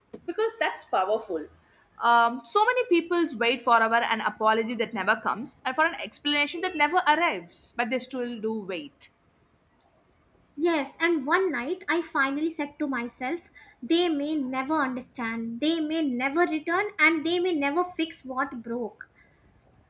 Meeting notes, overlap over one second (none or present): none